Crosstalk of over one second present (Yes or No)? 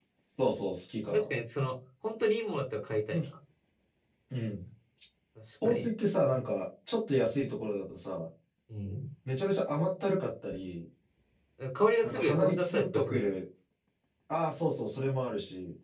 Yes